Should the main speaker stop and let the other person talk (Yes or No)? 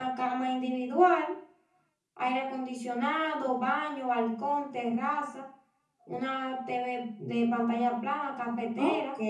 Yes